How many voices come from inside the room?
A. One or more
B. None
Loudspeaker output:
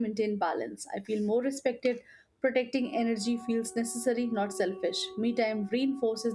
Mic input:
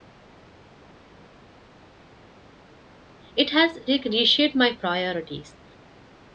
A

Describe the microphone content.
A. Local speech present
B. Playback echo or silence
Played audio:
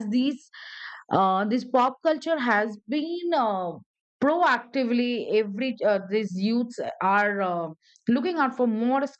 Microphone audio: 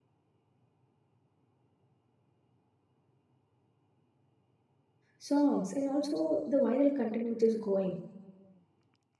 A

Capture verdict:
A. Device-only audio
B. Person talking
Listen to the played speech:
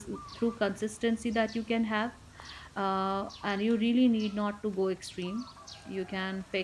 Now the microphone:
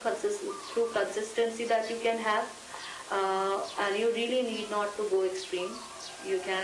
A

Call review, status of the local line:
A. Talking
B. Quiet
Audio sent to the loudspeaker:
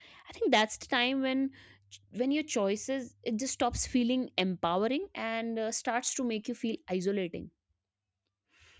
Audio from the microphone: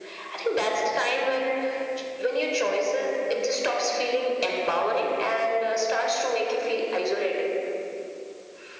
B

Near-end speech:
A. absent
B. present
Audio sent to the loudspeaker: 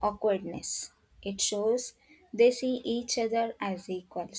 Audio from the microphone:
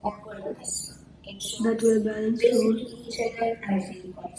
B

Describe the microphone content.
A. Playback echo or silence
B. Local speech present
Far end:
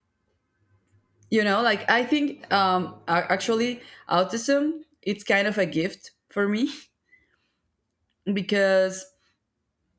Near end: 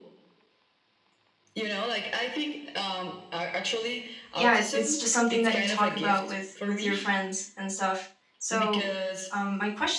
B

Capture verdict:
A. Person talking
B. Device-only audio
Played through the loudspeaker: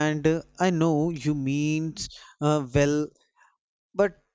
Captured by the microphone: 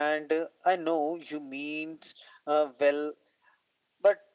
B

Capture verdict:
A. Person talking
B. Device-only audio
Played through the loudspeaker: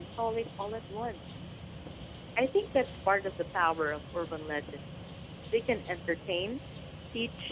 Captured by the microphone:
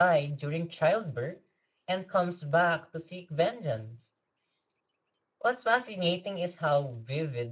A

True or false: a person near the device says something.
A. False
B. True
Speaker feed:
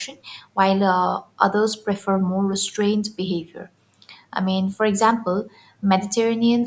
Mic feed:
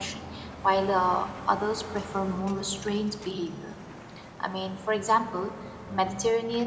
A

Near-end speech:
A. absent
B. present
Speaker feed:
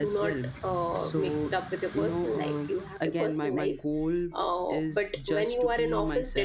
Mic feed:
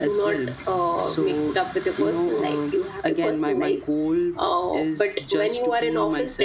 A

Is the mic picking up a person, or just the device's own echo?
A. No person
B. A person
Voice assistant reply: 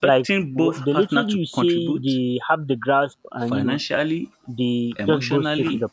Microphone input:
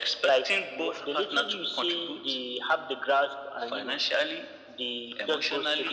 A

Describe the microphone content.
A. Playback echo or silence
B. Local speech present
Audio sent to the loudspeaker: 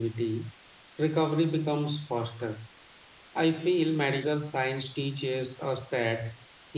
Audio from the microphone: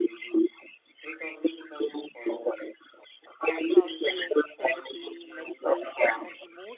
B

